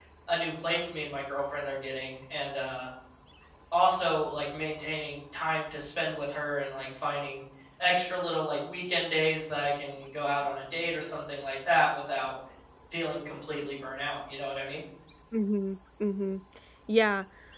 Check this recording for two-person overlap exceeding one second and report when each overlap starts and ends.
none

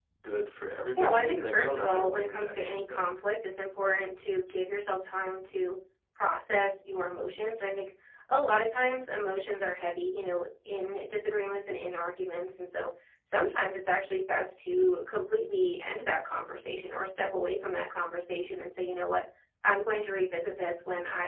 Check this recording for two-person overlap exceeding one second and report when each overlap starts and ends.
1.0-3.1

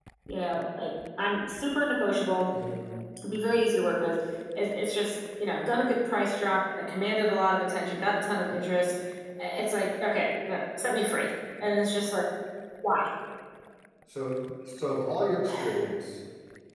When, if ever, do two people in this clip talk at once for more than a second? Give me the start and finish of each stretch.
none

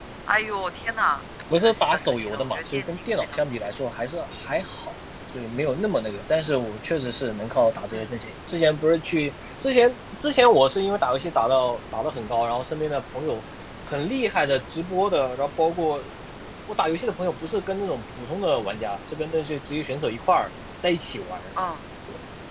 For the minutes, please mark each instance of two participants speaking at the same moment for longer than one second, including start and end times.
1.6-3.4

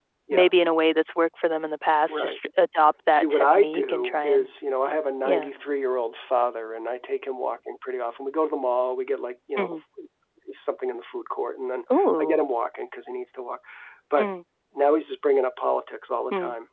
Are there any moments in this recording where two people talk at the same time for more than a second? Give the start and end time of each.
3.1-4.5

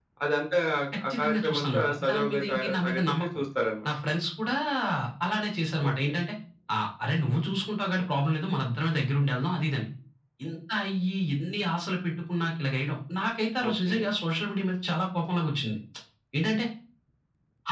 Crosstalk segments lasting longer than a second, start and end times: 1.1-3.2

